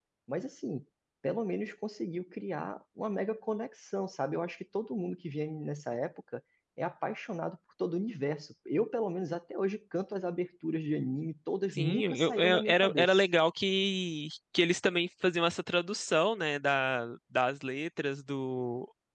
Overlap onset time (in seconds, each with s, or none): 11.7 s